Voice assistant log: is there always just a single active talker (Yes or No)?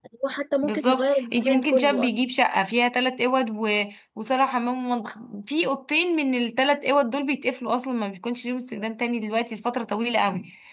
No